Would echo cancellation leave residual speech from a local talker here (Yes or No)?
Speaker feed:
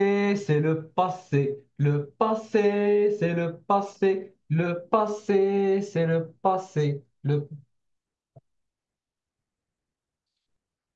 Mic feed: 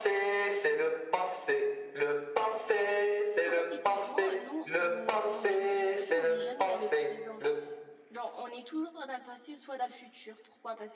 Yes